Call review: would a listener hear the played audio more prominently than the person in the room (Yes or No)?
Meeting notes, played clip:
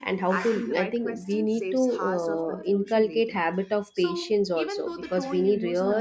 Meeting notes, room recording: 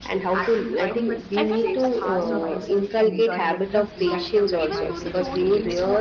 Yes